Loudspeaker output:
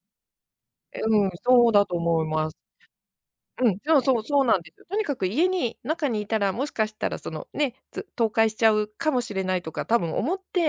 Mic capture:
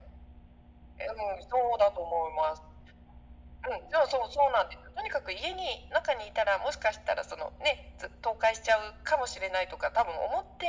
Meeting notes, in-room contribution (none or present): none